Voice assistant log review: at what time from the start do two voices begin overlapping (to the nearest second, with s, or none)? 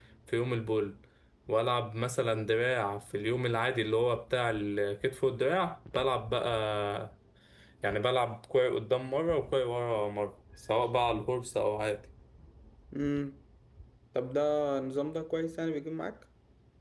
none